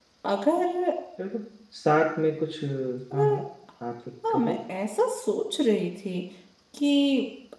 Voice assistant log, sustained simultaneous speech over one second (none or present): none